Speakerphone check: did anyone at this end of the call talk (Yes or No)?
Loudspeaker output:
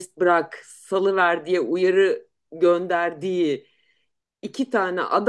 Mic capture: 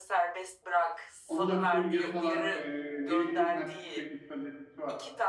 Yes